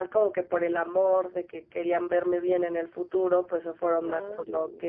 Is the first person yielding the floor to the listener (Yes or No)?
No